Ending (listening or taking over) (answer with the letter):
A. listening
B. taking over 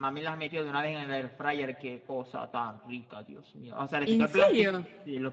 A